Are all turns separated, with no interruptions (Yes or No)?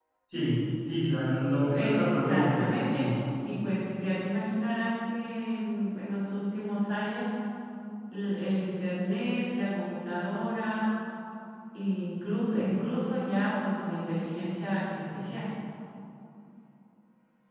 No